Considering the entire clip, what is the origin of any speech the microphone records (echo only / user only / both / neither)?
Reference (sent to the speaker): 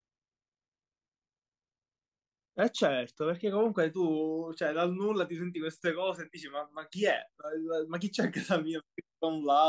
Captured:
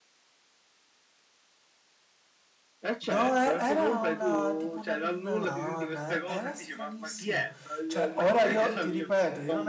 both